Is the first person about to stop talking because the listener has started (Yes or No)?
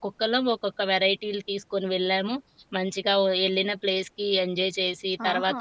Yes